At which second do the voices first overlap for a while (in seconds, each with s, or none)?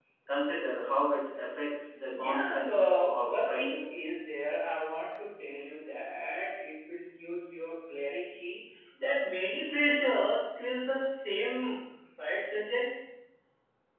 2.1 s